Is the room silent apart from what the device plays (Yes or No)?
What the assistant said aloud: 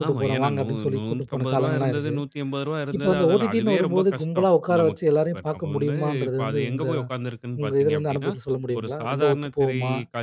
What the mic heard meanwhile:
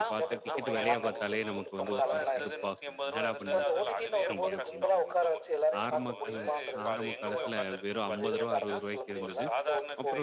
No